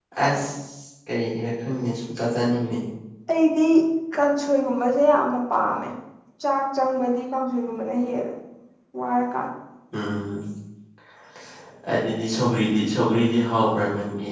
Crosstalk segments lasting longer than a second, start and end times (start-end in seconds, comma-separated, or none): none